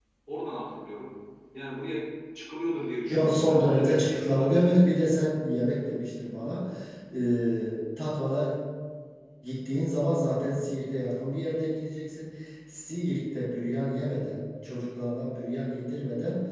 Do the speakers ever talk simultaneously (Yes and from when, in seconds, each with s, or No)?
Yes, from 3.1 s